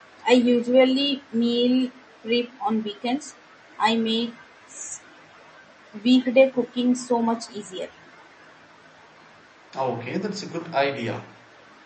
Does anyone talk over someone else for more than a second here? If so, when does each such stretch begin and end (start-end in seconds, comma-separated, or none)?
none